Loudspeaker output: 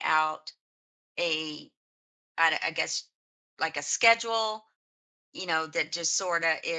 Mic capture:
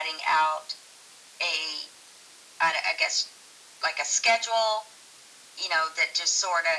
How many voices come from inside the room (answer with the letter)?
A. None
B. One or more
A